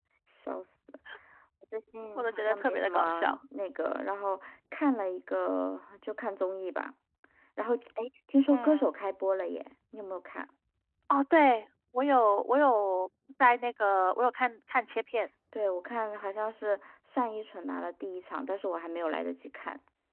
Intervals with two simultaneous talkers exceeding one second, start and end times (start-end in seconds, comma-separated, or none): 2.2-3.4